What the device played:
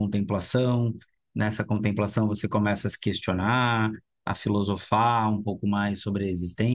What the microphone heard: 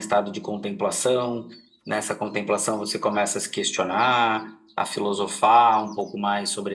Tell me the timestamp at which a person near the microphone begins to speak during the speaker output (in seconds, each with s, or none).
none